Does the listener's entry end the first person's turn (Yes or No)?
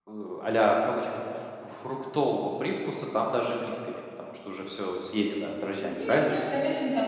Yes